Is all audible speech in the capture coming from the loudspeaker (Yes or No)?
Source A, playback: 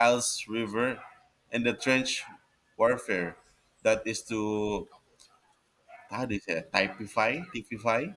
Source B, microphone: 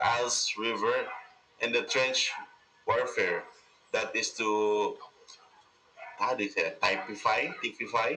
Yes